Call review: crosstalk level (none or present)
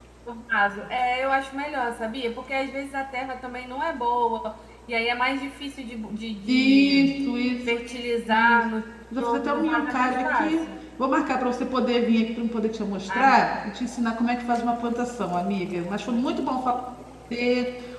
present